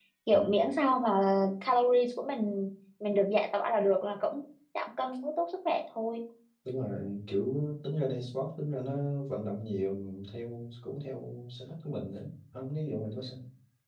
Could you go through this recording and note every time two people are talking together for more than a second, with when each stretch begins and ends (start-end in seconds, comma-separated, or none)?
none